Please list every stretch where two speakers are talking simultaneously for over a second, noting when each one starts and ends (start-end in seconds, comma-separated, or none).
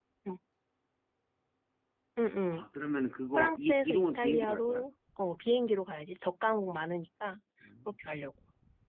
3.4-4.8